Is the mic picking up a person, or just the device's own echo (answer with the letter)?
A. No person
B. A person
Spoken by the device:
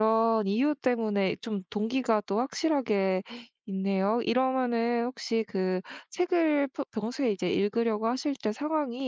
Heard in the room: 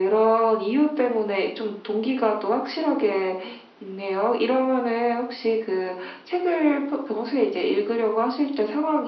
A